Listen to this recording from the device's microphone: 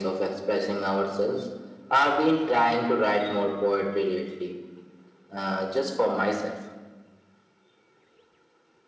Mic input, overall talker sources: echo only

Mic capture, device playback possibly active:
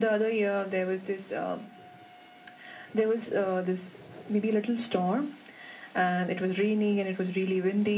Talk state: echo only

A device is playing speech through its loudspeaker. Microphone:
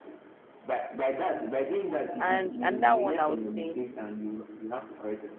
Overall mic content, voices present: both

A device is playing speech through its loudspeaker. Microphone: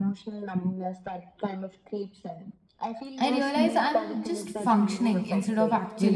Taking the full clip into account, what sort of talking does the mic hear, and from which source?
both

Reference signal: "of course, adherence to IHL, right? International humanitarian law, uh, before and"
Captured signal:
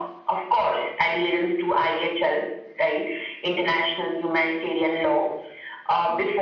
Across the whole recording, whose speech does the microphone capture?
echo only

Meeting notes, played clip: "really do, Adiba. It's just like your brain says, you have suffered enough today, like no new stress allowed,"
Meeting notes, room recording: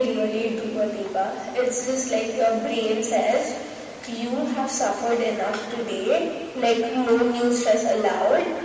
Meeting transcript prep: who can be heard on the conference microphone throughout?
echo only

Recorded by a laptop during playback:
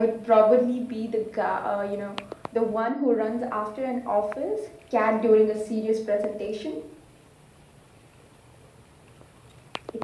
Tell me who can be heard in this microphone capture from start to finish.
echo only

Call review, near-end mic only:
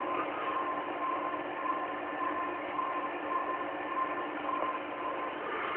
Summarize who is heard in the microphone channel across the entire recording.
neither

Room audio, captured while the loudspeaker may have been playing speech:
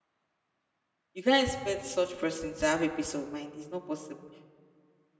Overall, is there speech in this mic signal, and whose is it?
user only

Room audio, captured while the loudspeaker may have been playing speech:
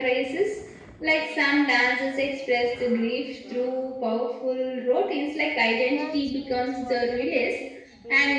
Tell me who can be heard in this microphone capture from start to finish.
both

